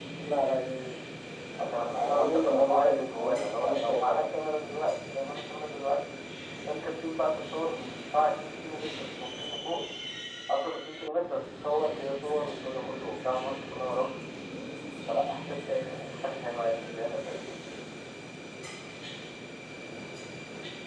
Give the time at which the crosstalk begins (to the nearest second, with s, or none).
2 s